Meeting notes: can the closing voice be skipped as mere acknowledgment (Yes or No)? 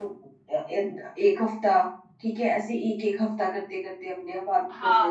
No